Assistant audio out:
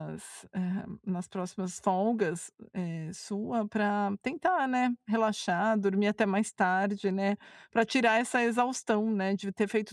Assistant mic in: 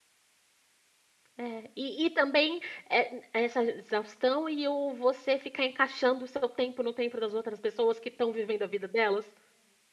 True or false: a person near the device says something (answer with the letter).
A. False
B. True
B